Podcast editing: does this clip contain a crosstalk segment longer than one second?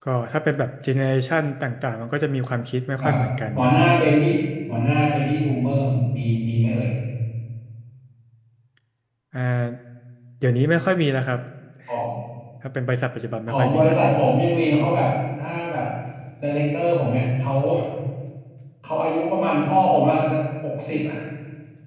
No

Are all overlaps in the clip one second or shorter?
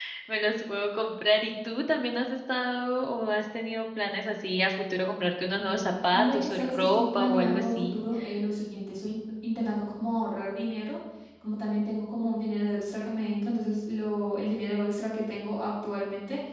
No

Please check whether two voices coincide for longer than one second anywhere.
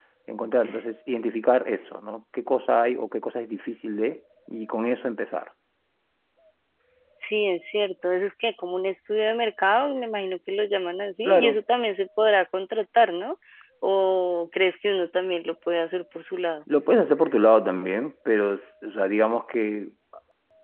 No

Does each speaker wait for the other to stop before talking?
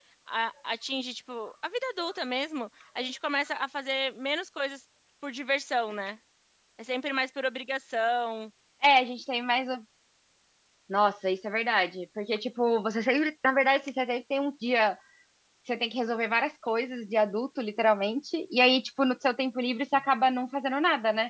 Yes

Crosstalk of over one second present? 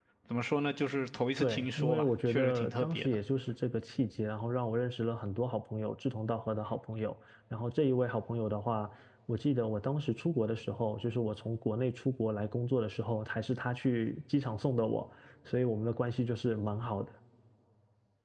Yes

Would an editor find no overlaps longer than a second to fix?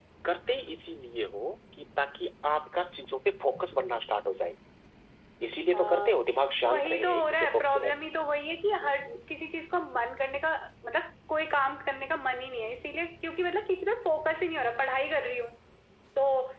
No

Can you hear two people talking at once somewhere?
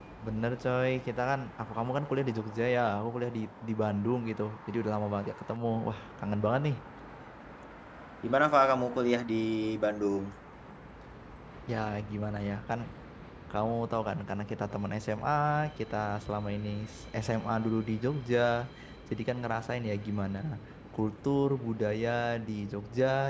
No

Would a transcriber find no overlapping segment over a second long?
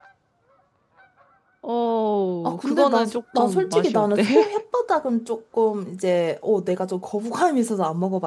No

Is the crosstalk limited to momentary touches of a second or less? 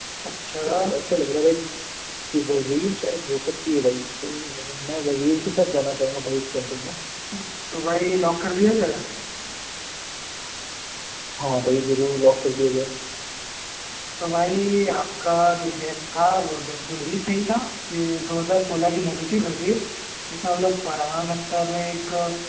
Yes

